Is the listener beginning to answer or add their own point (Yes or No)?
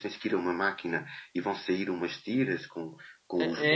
Yes